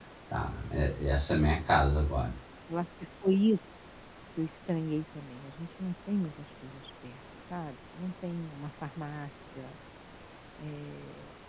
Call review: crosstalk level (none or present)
none